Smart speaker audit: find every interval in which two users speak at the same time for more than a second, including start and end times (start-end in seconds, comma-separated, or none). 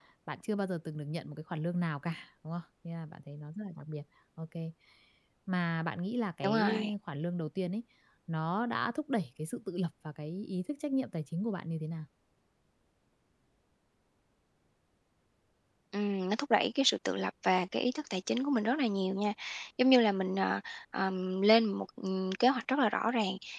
none